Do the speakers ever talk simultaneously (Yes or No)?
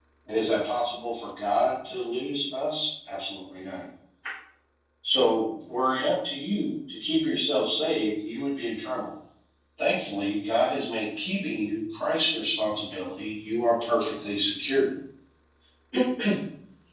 No